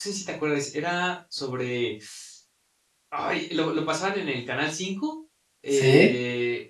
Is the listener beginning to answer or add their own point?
No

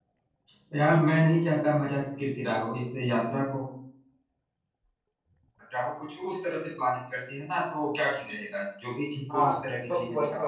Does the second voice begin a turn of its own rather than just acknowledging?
Yes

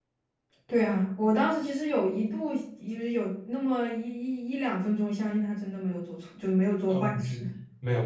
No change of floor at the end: No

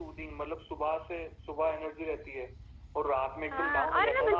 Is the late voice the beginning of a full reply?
Yes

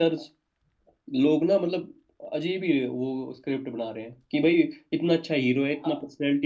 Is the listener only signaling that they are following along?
Yes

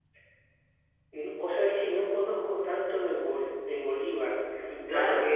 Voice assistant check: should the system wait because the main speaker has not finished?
No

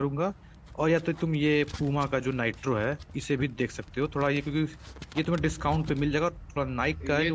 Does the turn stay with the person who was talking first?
No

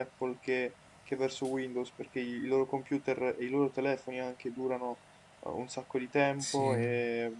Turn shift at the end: No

